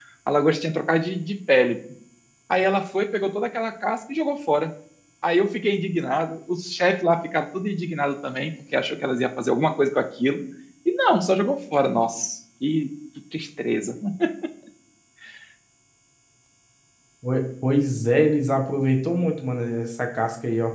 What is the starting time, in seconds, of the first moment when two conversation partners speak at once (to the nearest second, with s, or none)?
none